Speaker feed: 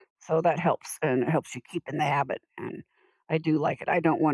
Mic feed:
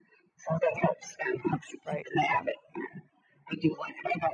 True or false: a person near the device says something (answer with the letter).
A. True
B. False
A